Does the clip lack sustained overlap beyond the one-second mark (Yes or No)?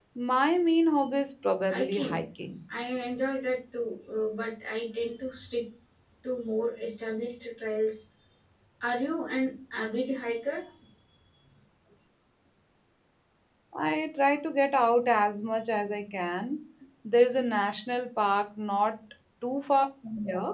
Yes